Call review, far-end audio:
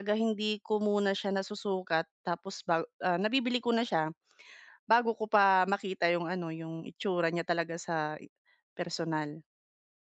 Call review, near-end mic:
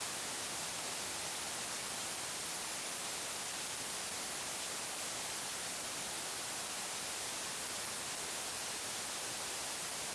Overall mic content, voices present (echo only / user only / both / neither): neither